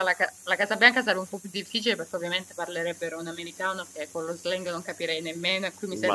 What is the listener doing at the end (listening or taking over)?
taking over